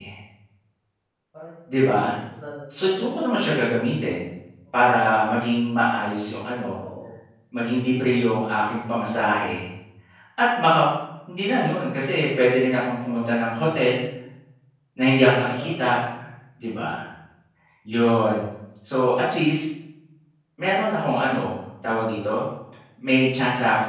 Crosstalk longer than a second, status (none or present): none